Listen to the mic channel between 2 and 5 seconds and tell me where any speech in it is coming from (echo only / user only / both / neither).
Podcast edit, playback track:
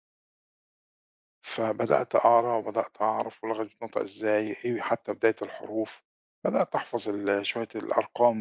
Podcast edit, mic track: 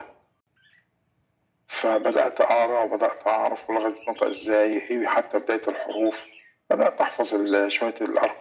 echo only